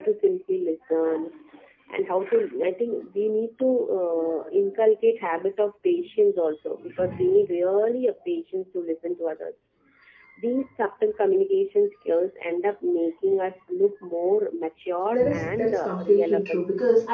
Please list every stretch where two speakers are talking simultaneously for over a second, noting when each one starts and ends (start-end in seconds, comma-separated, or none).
15.1-16.6